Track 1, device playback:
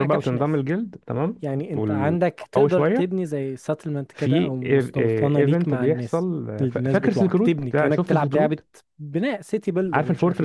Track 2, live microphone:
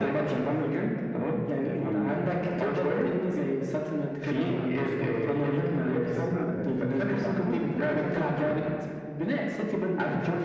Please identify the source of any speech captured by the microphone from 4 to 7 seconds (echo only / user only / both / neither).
both